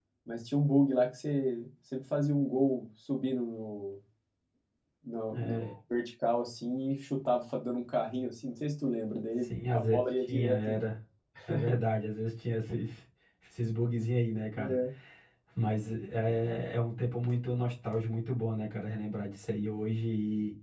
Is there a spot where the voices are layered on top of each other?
Yes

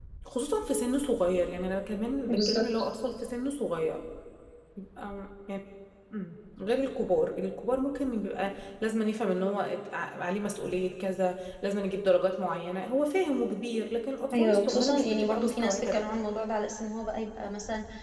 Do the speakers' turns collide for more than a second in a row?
Yes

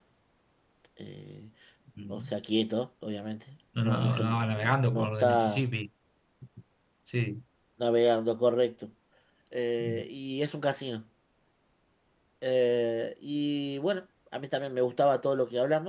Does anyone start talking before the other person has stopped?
Yes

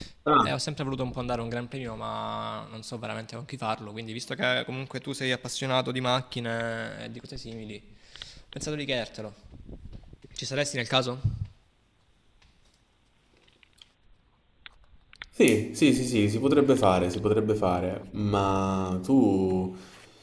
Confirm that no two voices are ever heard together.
Yes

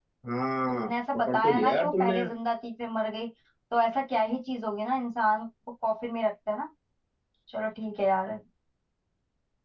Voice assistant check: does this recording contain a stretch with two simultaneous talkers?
Yes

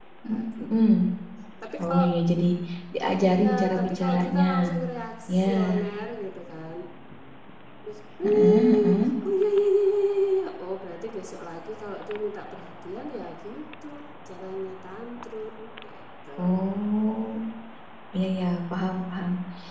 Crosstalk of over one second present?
Yes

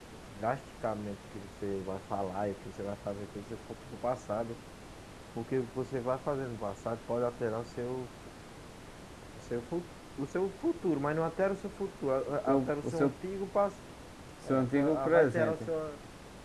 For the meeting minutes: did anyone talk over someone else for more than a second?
Yes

